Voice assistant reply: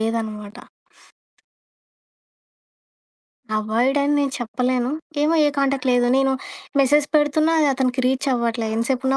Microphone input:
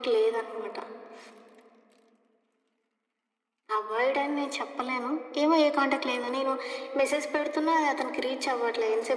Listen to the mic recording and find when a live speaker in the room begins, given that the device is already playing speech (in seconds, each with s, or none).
none